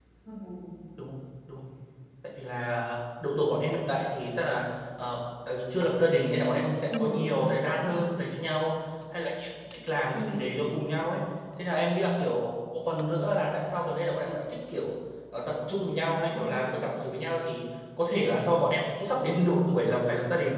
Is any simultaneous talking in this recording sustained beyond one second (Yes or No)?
Yes